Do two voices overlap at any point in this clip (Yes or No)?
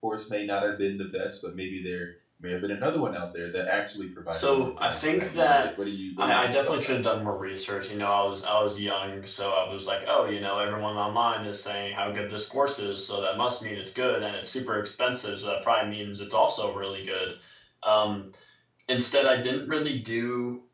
Yes